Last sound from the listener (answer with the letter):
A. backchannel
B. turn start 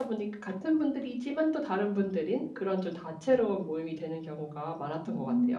B